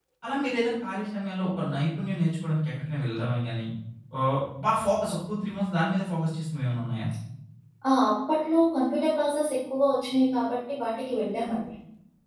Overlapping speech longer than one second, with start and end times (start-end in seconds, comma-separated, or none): none